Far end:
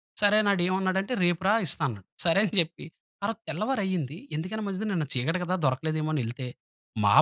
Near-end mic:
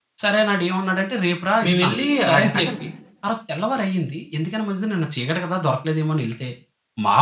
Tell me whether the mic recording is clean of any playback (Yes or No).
No